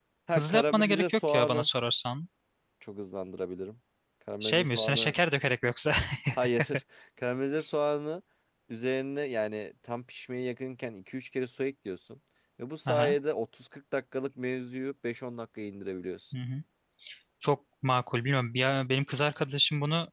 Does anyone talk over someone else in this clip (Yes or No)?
Yes